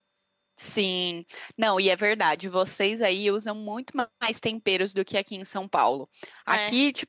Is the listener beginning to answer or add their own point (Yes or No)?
No